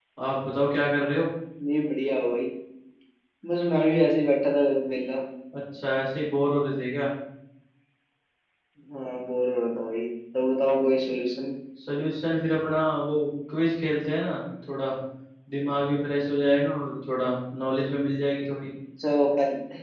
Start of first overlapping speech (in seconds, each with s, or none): none